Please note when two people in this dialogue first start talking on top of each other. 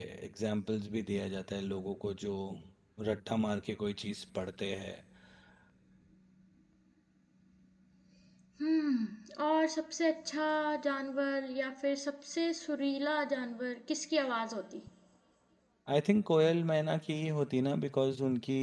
none

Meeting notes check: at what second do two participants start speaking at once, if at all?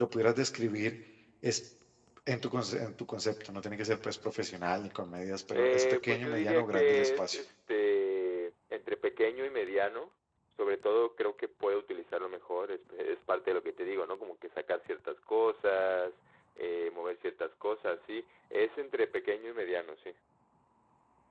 6 s

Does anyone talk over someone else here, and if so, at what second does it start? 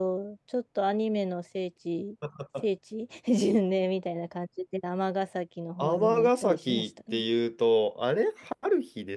6 s

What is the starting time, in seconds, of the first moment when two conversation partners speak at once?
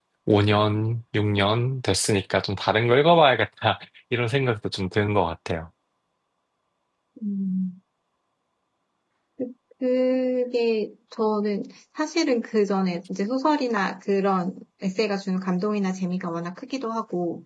none

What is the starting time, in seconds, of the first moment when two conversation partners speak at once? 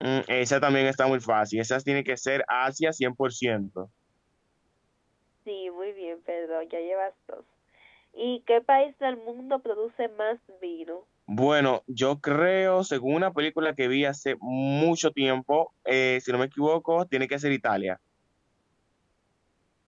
none

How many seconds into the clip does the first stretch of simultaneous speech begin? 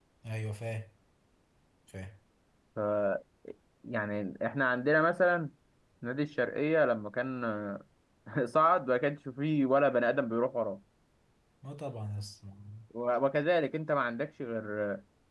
none

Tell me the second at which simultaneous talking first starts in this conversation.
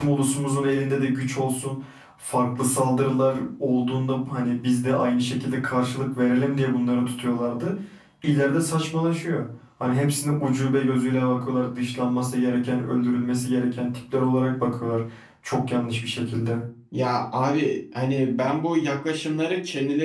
none

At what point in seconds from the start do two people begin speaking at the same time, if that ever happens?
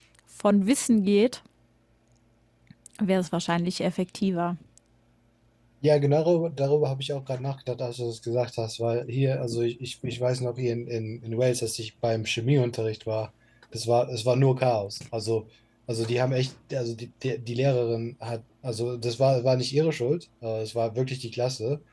none

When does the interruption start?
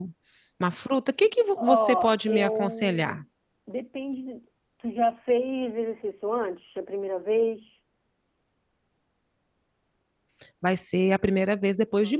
2 s

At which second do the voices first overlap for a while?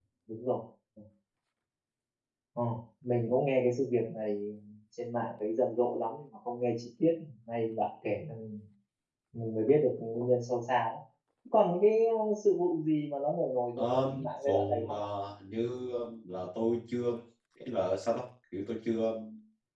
14 s

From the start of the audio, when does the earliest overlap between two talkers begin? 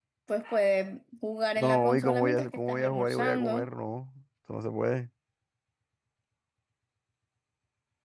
2 s

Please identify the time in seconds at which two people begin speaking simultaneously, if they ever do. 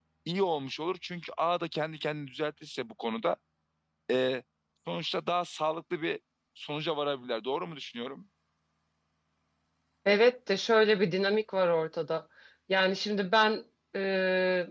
none

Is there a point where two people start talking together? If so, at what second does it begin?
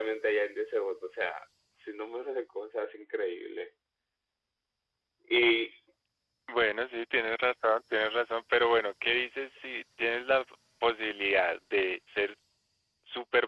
none

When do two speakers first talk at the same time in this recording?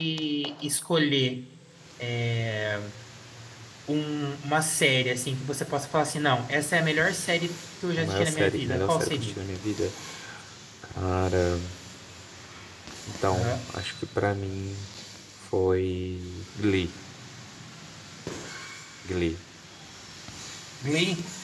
8 s

